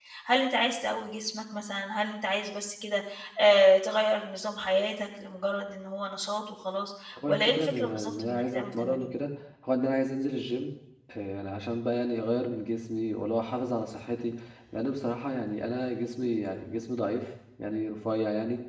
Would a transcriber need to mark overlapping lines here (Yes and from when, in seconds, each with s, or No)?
Yes, from 7.2 s